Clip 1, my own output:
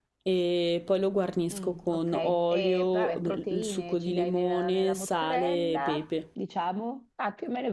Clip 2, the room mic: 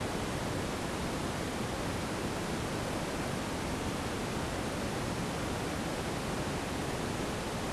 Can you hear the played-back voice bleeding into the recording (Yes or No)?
No